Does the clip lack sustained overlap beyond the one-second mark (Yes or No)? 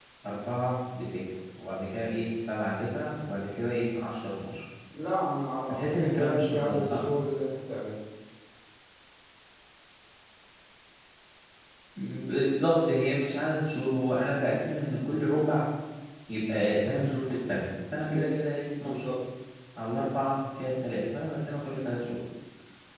No